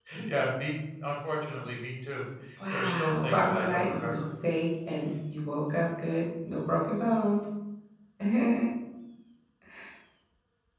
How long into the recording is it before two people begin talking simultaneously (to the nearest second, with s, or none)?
3 s